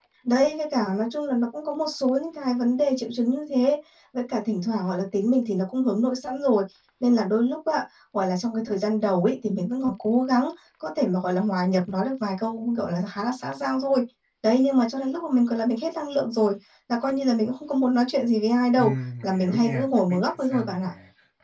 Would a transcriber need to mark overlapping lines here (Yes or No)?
Yes